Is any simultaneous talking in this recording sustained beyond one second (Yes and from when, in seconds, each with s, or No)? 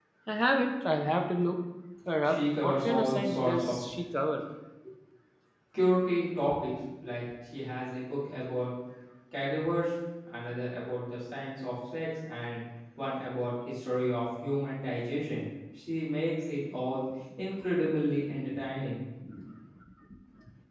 Yes, from 2.2 s